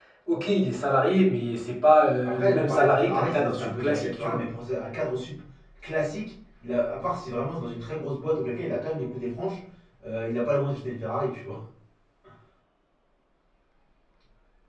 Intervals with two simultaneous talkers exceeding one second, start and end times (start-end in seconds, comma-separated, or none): 2.2-4.4